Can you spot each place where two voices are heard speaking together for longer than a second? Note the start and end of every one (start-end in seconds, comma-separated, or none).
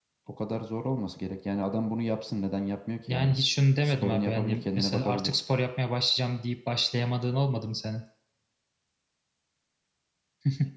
3.8-5.3